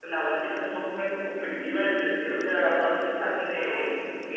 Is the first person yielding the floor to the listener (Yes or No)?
No